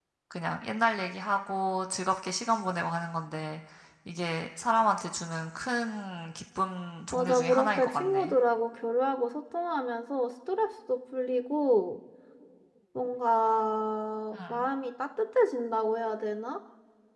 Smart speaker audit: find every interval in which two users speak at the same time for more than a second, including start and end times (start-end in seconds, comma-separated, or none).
7.1-8.4